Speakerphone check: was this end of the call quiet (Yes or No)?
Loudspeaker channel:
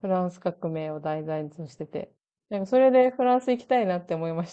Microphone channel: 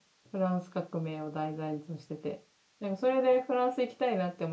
Yes